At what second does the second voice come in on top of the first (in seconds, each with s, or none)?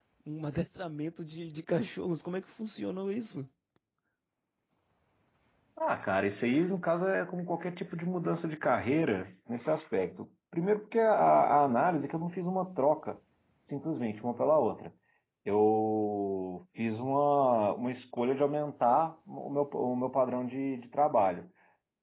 none